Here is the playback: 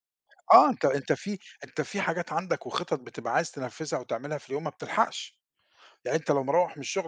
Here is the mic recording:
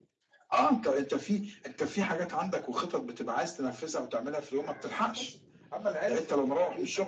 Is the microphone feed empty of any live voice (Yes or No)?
No